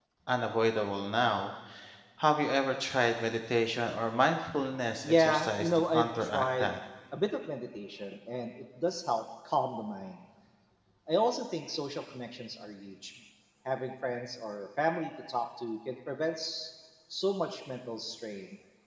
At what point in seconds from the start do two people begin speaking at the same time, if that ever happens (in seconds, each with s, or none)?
5.0 s